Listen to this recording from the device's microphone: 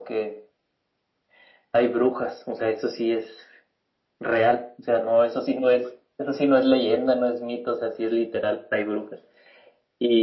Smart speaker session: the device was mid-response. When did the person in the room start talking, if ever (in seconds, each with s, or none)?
none